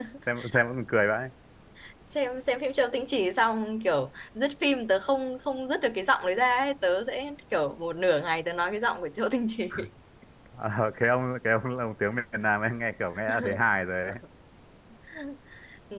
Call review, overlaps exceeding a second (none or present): none